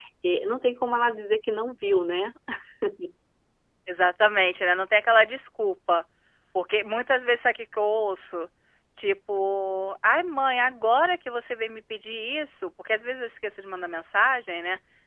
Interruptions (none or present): none